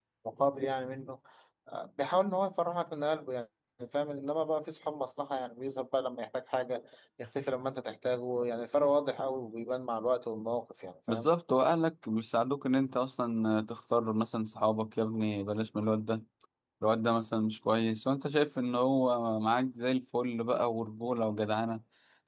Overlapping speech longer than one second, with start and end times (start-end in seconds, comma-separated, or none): none